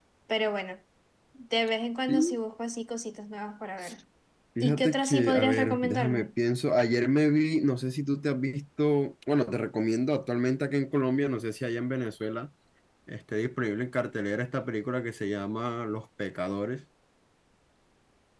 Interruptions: present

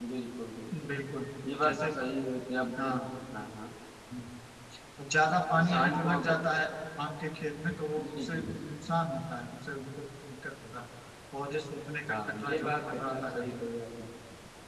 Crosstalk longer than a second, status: present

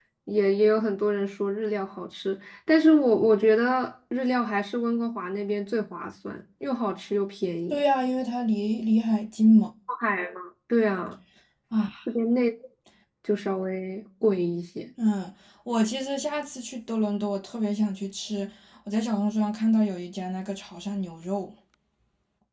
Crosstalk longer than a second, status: none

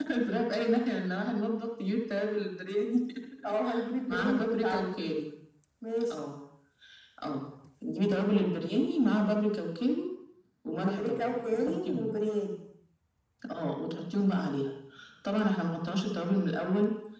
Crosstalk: present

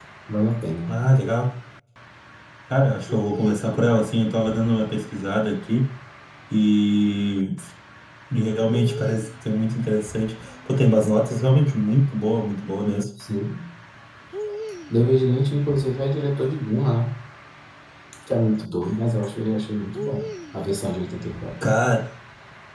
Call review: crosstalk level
none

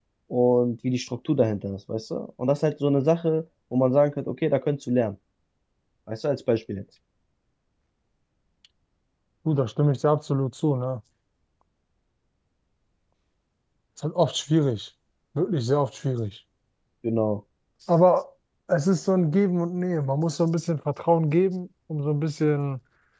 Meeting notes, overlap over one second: none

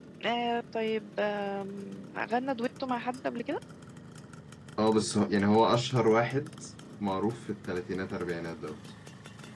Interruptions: none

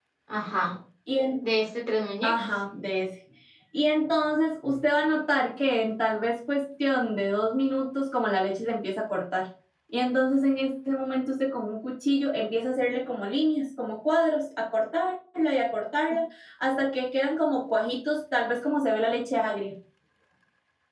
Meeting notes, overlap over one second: none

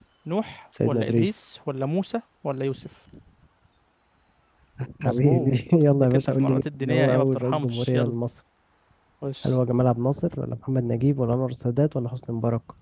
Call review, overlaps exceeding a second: present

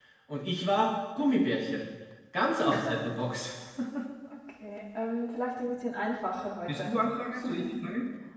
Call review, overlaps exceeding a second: none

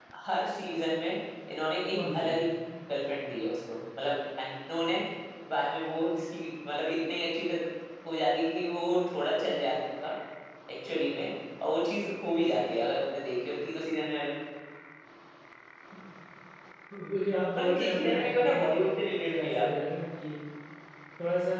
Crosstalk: present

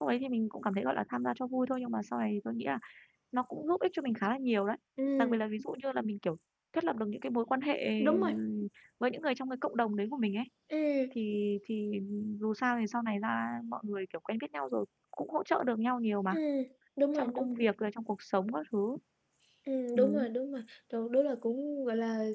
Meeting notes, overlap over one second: none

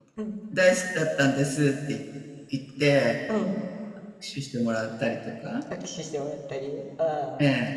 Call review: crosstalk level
none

